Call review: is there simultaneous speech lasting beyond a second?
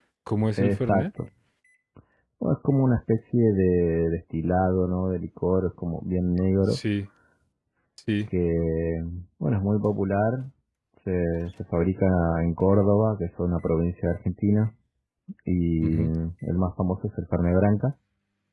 No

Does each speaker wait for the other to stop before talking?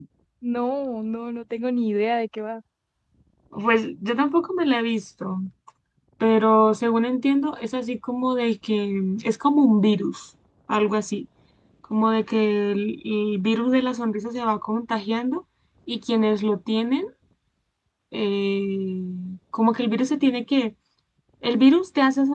Yes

